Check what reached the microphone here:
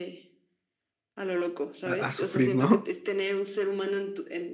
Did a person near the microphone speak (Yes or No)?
Yes